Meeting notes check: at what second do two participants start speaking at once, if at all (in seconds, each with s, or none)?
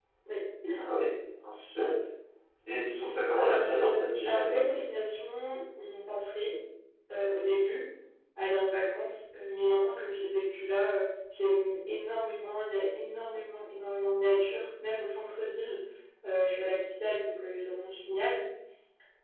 3.4 s